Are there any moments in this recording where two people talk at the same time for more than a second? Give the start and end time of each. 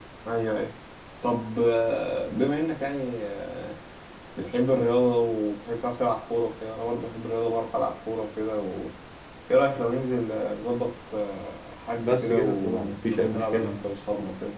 12.0-13.9

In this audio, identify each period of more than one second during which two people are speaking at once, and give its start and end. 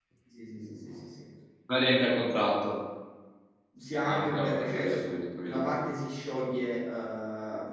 4.0-5.8

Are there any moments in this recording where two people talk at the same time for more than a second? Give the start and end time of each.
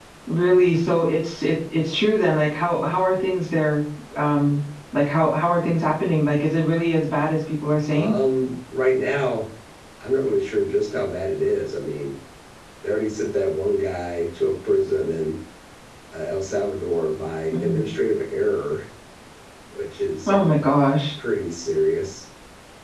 none

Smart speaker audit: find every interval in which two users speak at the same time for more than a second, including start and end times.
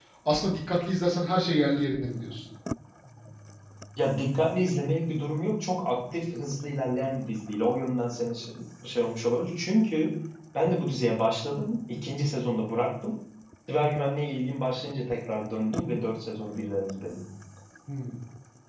none

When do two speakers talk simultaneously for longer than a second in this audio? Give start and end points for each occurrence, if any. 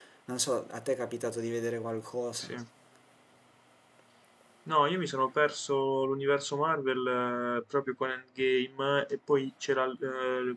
none

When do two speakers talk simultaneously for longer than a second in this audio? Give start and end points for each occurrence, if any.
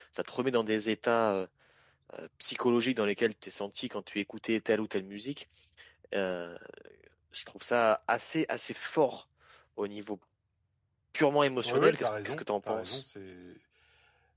11.6-13.0

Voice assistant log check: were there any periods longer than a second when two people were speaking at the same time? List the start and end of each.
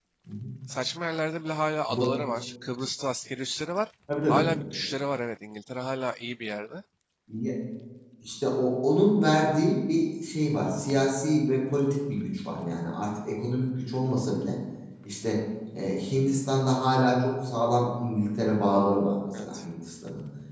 none

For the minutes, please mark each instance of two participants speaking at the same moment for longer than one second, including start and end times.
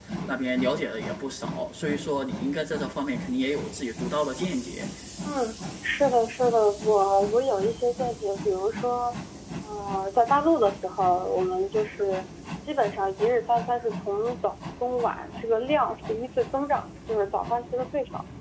none

